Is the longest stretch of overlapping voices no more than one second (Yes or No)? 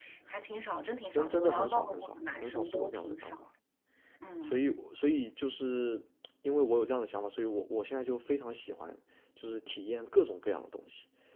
No